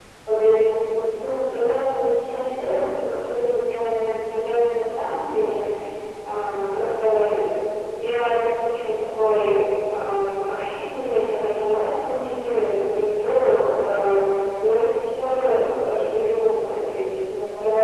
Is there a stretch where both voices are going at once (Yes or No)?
No